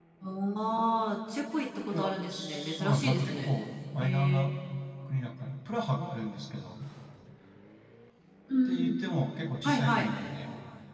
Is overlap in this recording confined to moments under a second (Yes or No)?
No